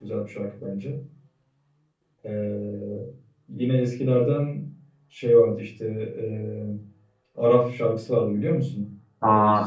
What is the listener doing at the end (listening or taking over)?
taking over